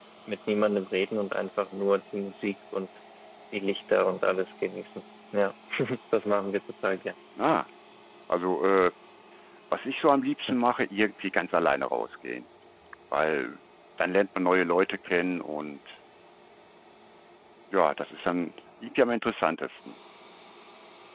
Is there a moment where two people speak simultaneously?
No

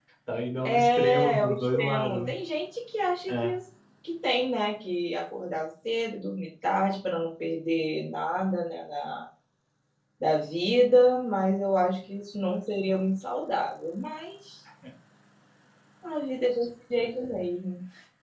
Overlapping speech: Yes, from 0.6 s

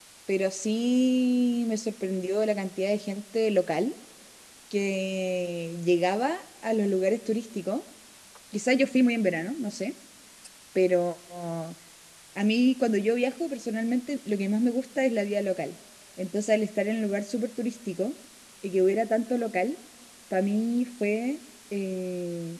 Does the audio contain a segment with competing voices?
No

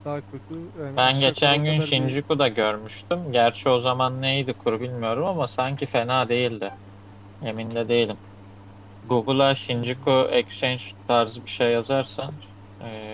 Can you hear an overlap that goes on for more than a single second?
Yes, from 1.0 s

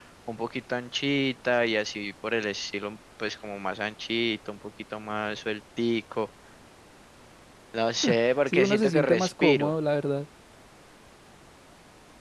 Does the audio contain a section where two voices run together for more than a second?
Yes, from 8.5 s

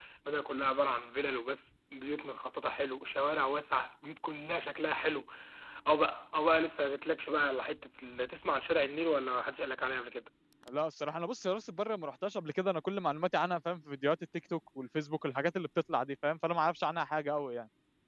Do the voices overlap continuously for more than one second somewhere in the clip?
No

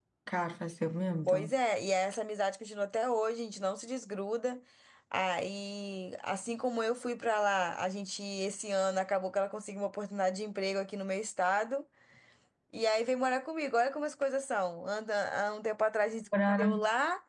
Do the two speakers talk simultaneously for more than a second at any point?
No

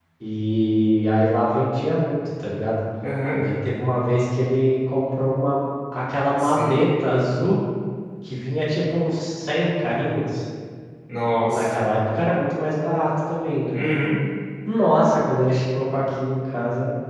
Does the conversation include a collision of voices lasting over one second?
No

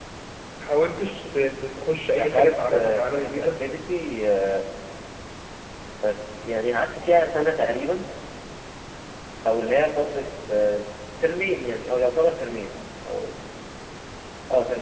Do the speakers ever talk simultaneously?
Yes, from 2.2 s

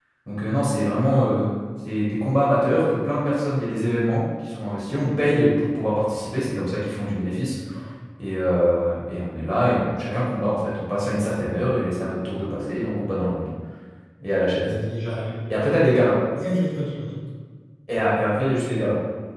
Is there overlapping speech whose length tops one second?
No

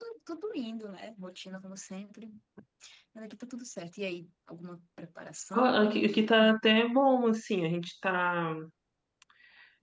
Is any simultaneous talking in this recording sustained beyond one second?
No

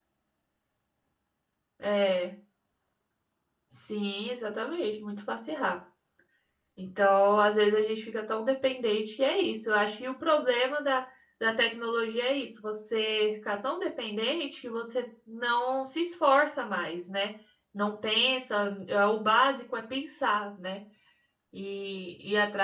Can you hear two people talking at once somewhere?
No

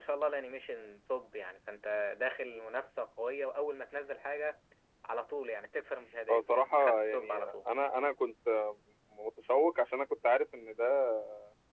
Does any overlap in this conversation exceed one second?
Yes, from 6.3 s

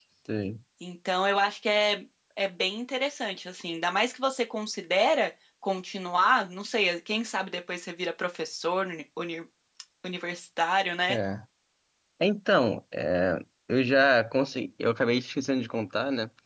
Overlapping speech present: No

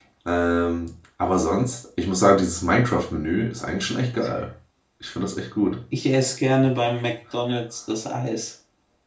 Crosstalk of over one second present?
No

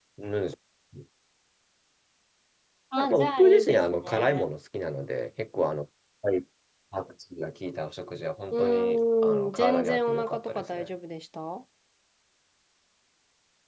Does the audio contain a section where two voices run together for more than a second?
Yes, from 3.0 s

